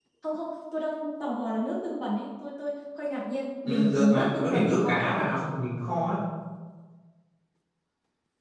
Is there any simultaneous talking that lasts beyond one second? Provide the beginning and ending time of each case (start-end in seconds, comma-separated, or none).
3.6-5.4